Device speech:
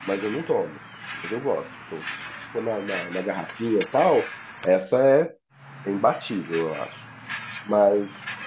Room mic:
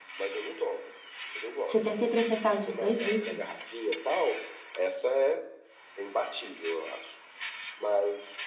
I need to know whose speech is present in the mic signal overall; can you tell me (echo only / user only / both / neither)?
both